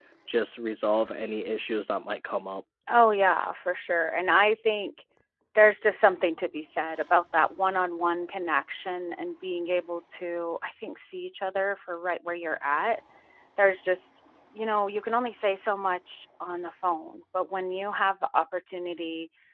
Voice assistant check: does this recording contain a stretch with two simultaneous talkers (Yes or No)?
No